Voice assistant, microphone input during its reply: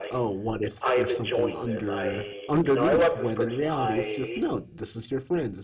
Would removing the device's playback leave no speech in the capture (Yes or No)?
No